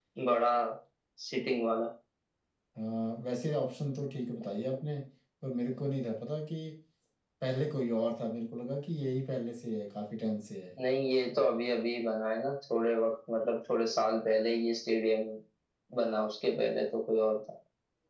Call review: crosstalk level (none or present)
none